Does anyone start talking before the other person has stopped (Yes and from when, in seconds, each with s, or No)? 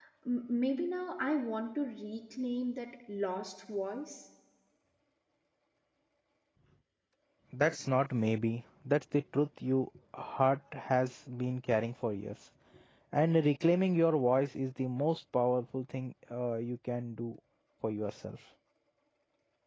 No